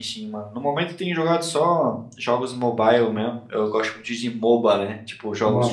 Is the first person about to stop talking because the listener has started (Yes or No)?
No